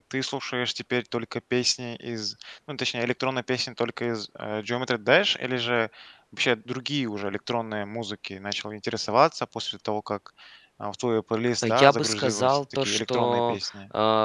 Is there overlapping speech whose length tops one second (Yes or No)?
Yes